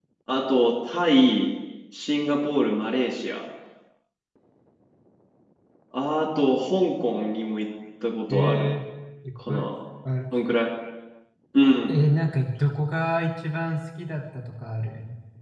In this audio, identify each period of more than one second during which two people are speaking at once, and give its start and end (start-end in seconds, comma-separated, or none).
none